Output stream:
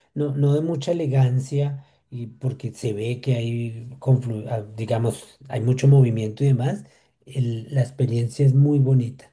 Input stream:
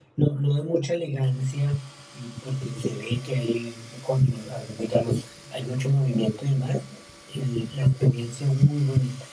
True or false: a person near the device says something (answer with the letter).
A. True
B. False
B